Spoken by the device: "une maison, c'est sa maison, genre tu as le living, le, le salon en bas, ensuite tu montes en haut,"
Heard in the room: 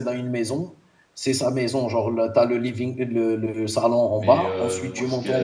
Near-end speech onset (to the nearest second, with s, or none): 4 s